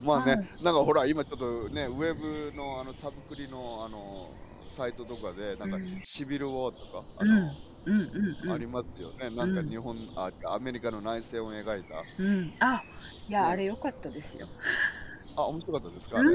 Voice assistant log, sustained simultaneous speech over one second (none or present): none